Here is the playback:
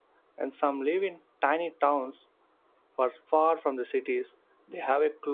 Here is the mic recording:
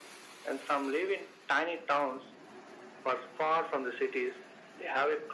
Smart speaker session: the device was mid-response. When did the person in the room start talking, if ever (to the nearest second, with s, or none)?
none